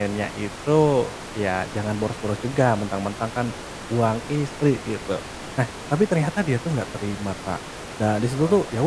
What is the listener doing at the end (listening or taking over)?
listening